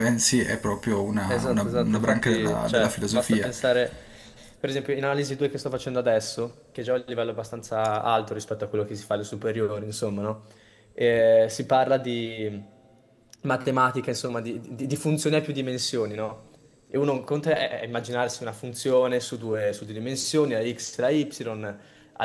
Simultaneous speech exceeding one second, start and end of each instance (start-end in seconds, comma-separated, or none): 1.3-3.5